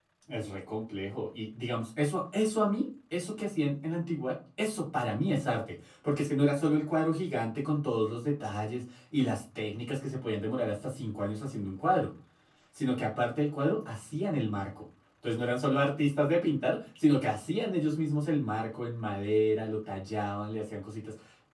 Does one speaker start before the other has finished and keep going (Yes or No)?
No